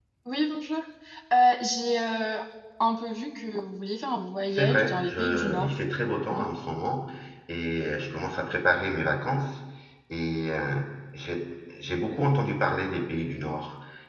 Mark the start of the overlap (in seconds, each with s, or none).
4.5 s